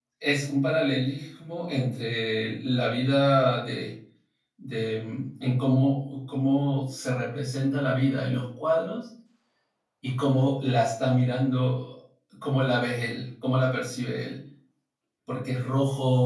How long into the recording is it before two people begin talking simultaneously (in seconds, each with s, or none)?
none